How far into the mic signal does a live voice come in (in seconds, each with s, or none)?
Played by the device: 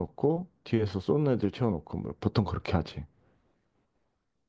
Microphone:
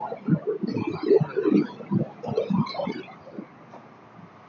none